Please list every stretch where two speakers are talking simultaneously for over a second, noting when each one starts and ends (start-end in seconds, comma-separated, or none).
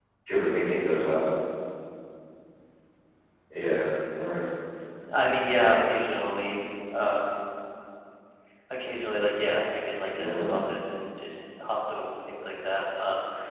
none